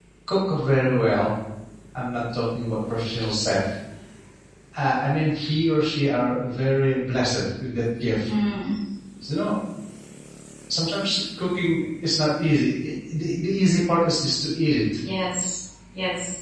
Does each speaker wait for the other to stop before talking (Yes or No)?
Yes